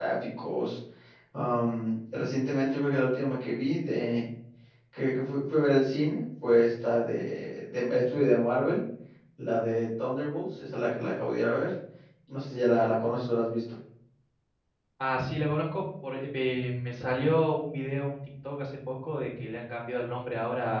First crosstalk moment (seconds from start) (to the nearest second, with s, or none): none